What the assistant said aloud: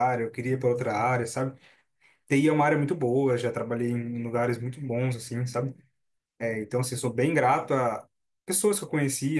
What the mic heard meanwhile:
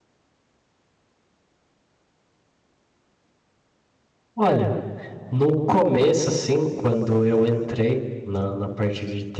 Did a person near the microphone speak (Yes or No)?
Yes